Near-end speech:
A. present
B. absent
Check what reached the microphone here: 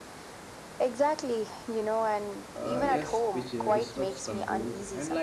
A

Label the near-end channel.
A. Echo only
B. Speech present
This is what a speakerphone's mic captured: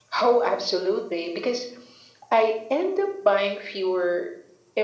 A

